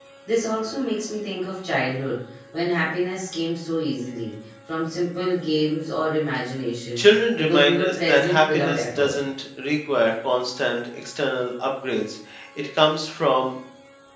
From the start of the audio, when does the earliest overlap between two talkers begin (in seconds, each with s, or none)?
7.3 s